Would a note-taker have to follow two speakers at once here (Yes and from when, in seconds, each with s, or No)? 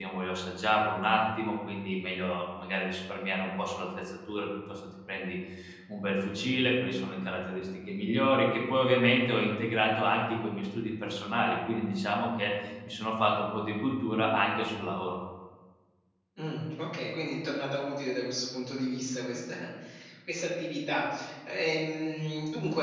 No